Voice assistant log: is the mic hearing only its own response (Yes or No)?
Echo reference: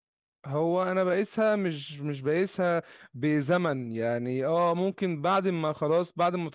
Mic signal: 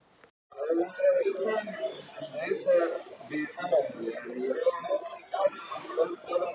Yes